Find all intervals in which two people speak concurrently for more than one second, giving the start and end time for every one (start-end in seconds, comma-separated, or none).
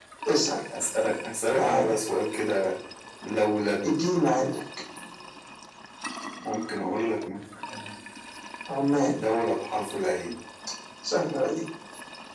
none